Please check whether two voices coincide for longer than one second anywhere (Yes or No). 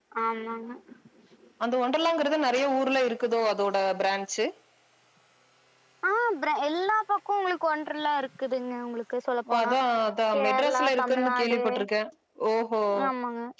Yes